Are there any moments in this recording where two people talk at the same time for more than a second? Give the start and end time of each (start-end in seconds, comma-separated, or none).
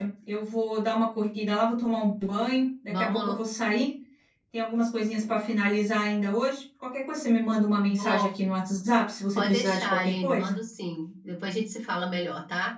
9.4-10.6